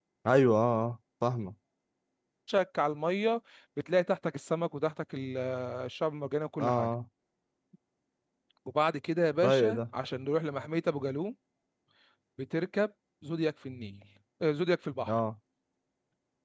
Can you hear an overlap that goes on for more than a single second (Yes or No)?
No